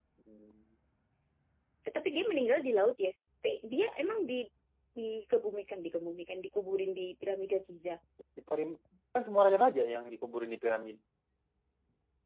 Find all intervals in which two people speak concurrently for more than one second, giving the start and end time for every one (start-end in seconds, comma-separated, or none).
none